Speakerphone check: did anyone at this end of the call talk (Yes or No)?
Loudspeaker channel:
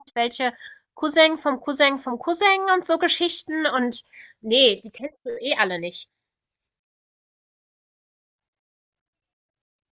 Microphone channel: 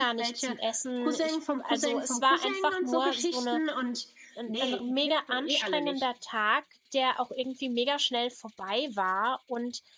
Yes